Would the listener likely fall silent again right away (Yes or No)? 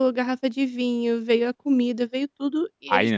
No